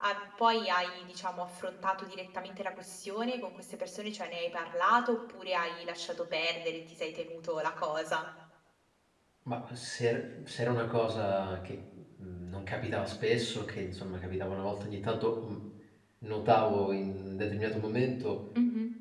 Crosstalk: none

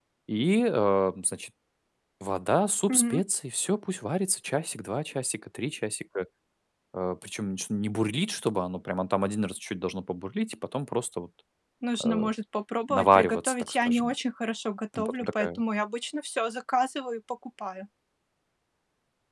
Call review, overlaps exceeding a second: present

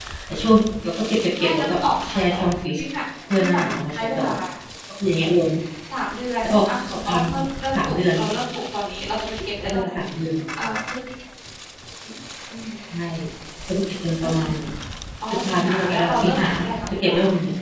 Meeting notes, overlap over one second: present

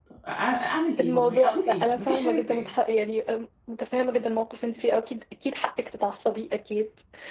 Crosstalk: present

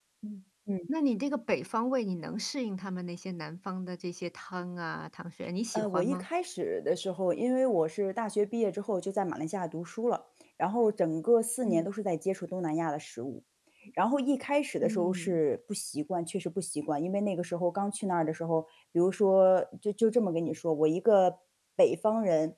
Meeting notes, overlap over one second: none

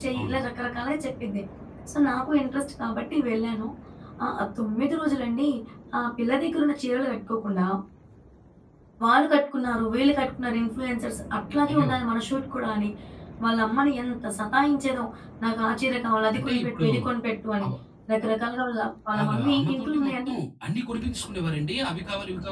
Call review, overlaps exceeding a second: present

